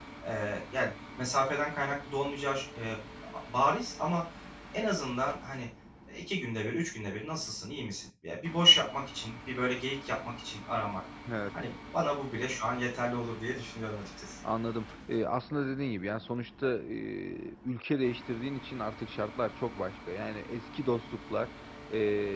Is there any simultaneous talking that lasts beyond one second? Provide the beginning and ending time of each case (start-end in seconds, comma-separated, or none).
none